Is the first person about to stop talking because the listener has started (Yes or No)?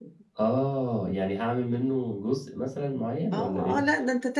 Yes